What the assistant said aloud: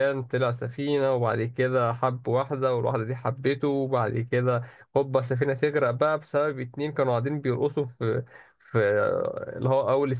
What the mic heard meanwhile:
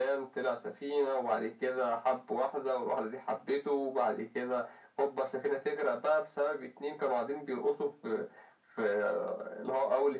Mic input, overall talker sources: echo only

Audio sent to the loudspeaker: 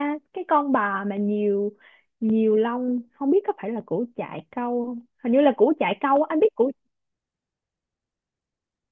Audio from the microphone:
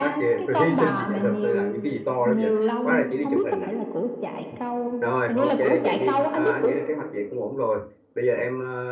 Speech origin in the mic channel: both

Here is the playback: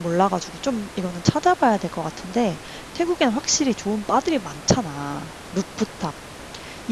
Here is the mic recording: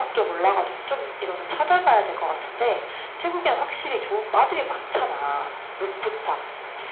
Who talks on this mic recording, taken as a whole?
echo only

